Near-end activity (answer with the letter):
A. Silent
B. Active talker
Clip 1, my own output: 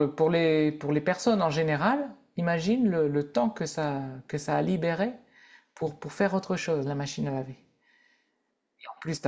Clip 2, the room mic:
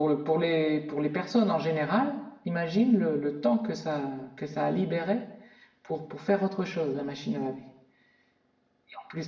A